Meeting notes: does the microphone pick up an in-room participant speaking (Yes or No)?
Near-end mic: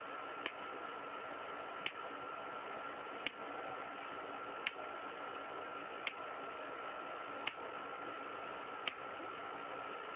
No